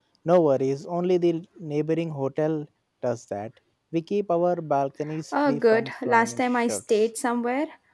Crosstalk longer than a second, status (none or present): present